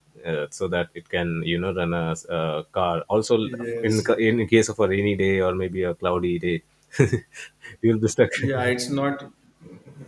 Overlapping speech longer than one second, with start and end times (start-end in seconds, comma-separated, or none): none